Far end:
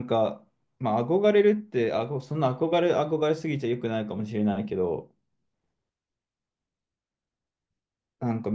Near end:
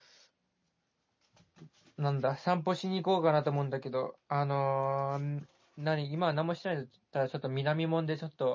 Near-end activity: present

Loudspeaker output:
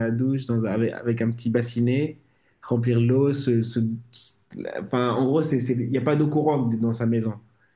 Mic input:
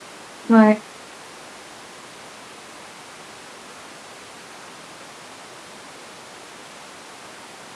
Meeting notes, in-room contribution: present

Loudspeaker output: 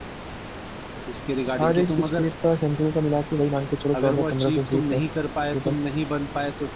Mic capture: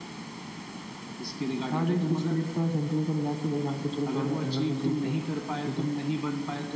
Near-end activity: none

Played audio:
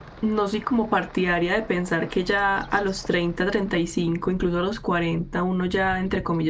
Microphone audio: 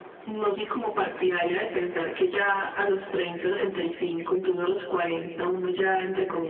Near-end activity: none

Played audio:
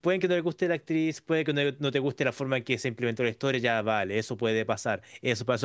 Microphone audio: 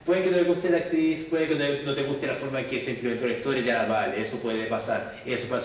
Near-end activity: none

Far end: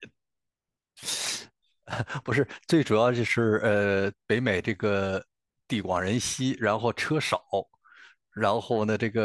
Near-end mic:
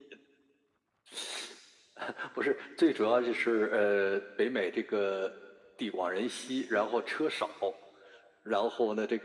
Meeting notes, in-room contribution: none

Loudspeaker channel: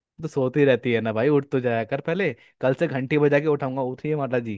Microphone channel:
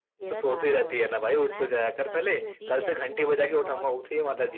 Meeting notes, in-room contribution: present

